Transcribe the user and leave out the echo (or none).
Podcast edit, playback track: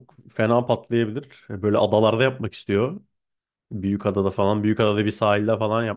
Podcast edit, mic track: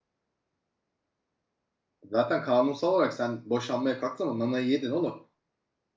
Zaten kanunsal olarak sen boşanmaya kalktın ama nanayı yedin oğlum.